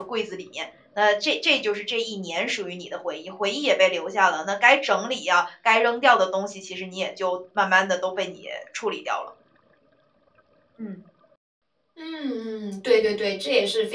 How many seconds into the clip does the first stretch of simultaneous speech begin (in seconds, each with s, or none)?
none